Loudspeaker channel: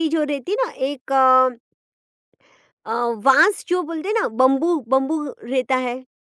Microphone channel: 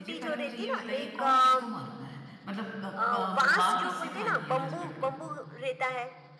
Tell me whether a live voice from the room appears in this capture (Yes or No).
Yes